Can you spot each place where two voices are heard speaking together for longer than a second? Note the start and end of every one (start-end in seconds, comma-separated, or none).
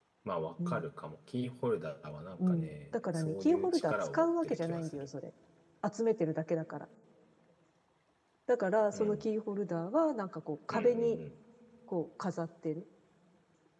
2.4-5.1